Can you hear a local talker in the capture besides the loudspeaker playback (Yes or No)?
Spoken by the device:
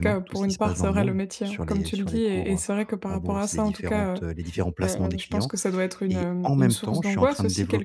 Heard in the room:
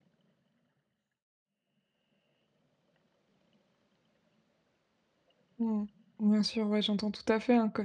Yes